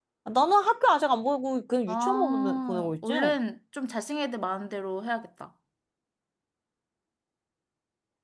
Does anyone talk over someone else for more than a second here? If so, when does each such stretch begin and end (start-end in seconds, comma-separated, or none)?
1.9-3.1